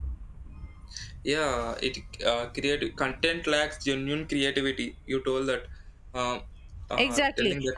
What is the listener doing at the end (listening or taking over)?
taking over